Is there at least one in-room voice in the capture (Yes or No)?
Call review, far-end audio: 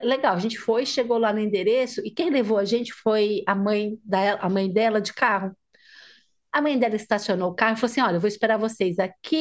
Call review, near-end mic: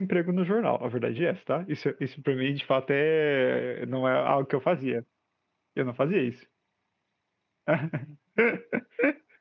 Yes